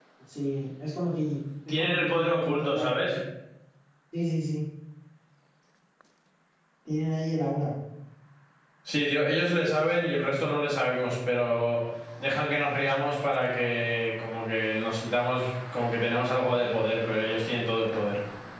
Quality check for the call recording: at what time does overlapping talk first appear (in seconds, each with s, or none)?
1.7 s